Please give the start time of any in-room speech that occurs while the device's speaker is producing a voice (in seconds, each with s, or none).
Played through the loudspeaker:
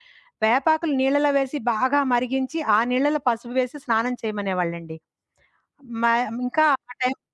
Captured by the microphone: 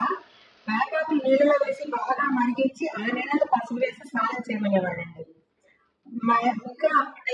none